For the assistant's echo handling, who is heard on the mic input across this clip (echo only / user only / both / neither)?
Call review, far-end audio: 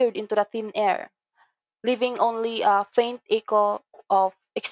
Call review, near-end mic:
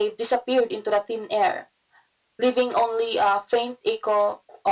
echo only